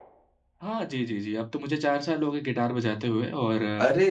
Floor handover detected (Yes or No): No